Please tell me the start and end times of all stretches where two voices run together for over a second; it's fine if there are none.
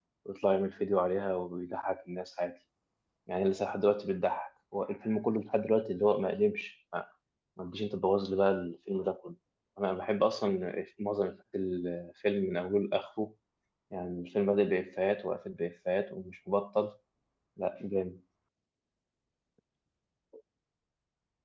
none

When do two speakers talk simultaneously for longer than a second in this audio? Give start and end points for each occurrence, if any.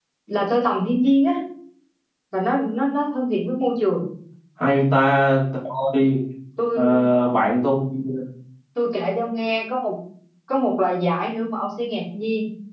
none

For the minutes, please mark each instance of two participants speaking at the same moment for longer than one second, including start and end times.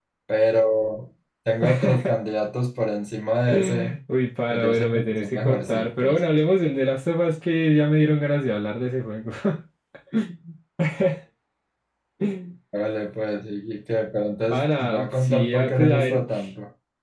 4.5-6.2, 14.5-16.2

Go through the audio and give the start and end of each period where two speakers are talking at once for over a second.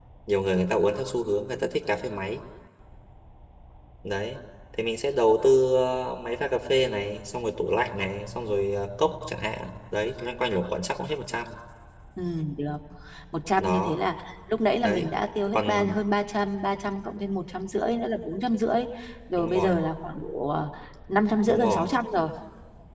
none

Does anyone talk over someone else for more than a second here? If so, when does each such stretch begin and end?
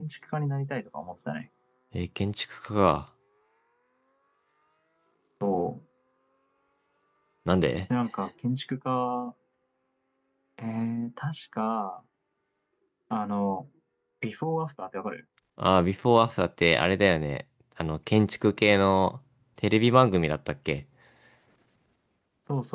none

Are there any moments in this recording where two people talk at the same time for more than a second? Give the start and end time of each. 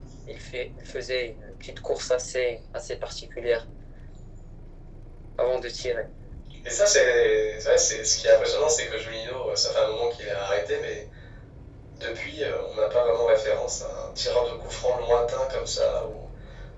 none

